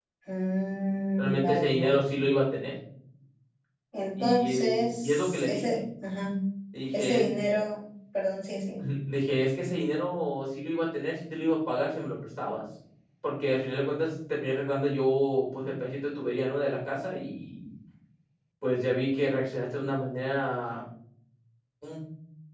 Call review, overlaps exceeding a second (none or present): present